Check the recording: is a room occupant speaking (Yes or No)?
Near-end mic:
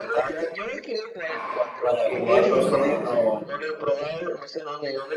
Yes